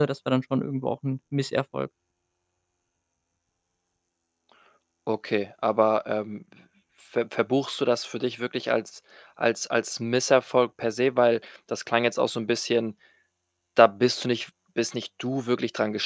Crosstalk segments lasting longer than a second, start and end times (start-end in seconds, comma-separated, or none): none